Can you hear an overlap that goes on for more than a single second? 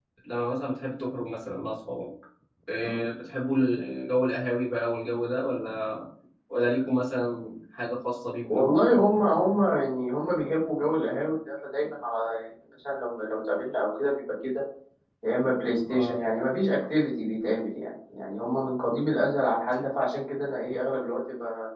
No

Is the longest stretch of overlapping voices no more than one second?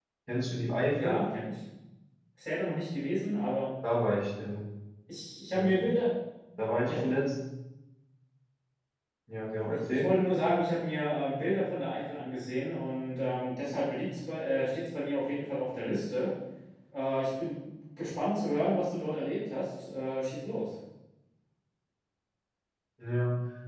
Yes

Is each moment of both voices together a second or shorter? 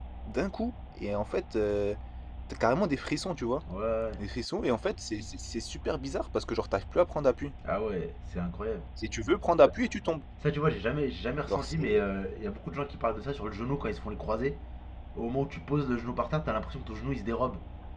Yes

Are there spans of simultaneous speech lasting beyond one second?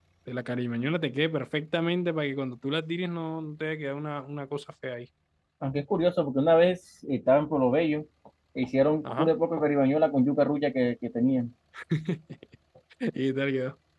No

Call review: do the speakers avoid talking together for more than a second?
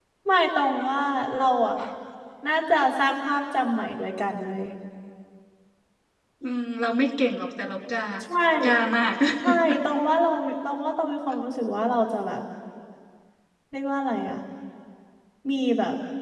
Yes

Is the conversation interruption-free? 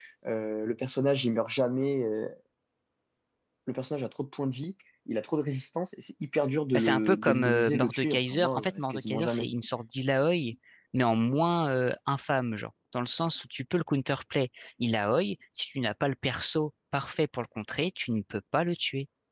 No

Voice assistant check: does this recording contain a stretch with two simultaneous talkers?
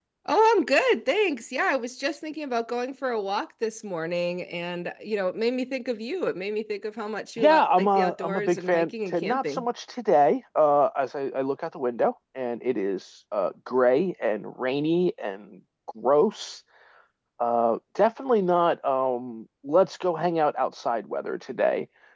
Yes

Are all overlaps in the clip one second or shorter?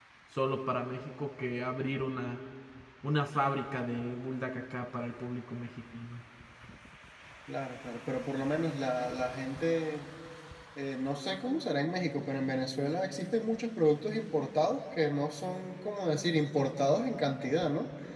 Yes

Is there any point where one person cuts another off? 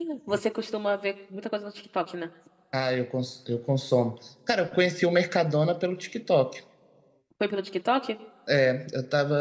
No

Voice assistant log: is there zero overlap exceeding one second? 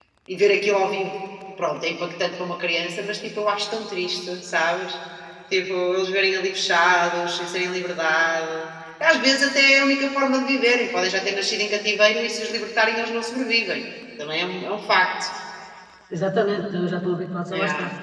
Yes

